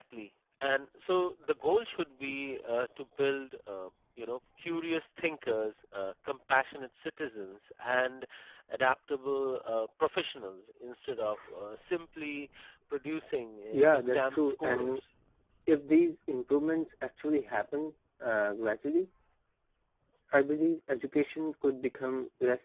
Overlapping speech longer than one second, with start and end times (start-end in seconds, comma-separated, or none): 13.7-15.0